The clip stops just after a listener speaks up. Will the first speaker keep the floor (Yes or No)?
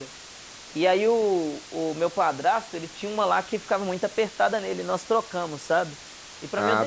Yes